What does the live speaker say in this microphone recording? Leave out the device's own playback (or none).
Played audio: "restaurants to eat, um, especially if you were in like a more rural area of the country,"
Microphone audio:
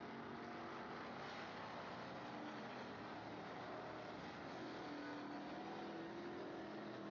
none